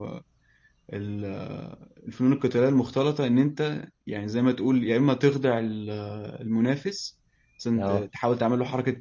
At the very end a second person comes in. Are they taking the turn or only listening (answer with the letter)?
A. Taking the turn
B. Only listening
B